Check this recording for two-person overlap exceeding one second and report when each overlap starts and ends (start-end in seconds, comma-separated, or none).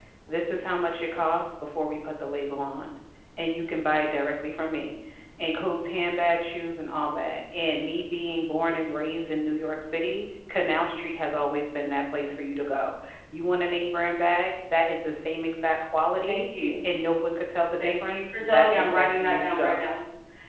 17.8-19.8